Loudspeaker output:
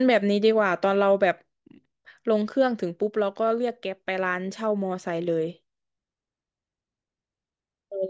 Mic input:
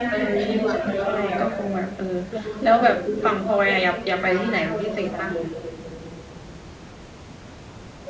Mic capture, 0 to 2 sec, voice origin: both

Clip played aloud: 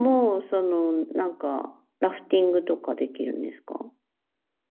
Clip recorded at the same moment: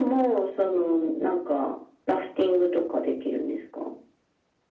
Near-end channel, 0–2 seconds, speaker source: echo only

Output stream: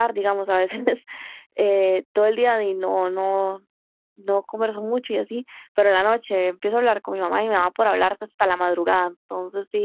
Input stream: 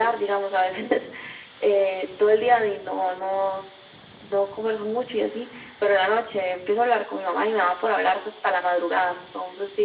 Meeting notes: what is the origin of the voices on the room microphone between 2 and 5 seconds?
echo only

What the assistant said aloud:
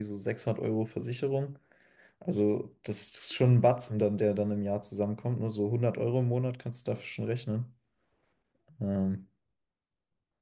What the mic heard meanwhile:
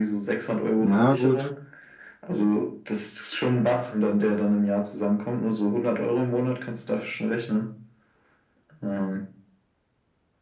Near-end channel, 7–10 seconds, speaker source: echo only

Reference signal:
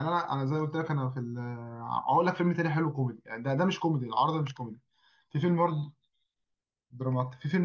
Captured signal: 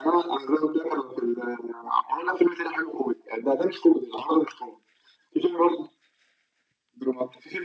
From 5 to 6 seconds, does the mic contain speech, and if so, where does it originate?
echo only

